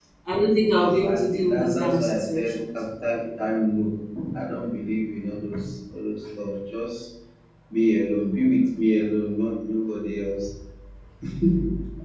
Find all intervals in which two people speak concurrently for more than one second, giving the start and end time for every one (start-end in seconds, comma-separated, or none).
0.8-2.6